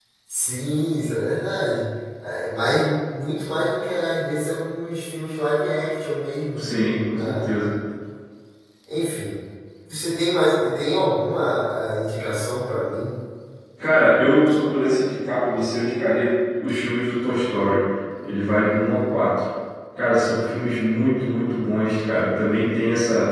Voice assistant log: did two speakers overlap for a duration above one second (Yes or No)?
No